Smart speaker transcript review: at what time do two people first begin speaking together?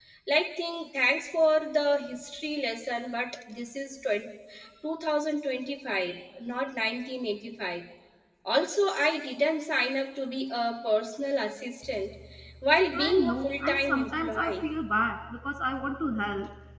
12.9 s

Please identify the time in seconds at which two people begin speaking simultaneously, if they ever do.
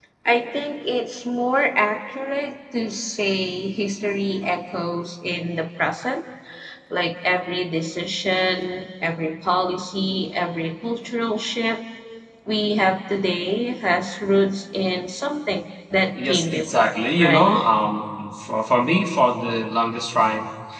16.1 s

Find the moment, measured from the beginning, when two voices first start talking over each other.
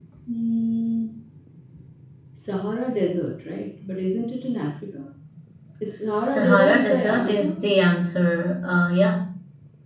6.2 s

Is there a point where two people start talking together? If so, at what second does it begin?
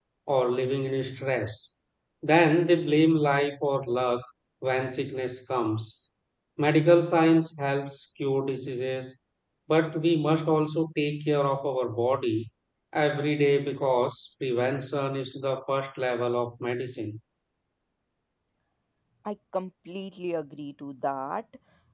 none

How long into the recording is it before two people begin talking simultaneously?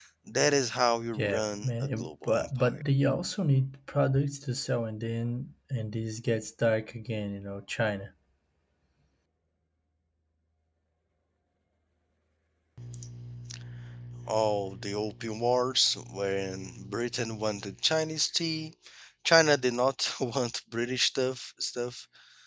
1.2 s

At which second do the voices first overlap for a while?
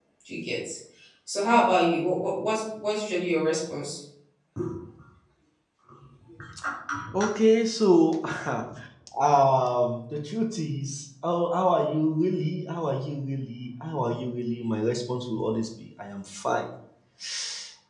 none

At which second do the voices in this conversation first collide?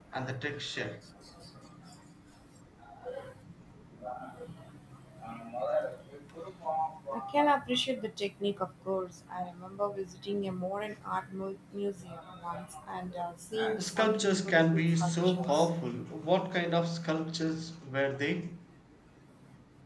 13.8 s

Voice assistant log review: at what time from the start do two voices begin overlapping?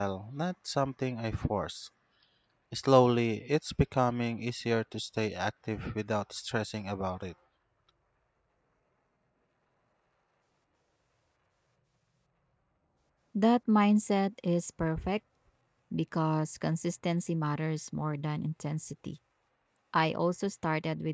none

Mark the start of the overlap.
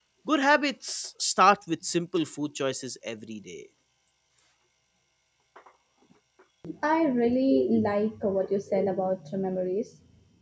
none

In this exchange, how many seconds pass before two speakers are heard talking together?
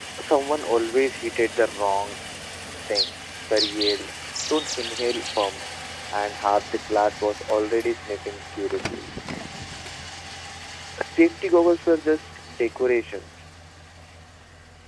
none

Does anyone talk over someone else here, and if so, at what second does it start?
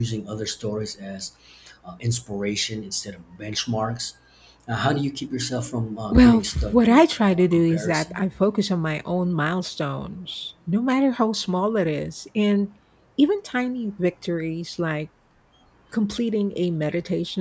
6.1 s

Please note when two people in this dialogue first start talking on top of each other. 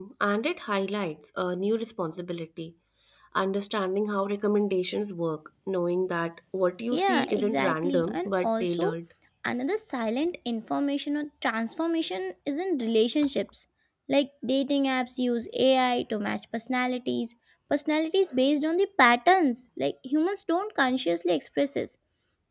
6.9 s

